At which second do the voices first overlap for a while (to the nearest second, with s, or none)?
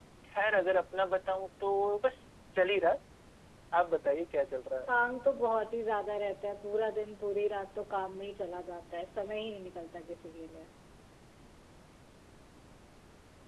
none